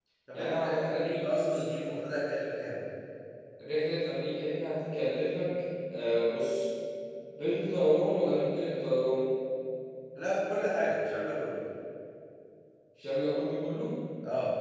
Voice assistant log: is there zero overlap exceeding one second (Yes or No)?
No